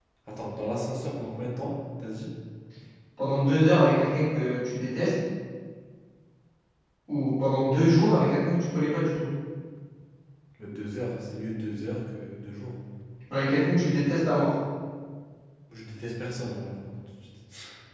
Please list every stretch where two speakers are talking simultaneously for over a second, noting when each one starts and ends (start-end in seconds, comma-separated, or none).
none